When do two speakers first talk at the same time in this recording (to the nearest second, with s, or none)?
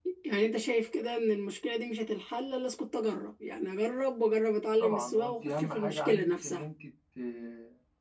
5 s